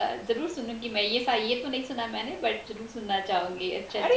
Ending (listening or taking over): taking over